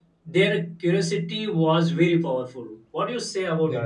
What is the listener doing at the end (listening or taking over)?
taking over